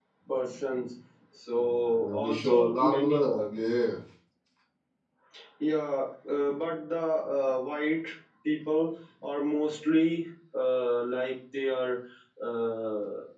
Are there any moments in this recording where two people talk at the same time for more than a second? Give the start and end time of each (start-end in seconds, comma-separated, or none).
1.6-3.2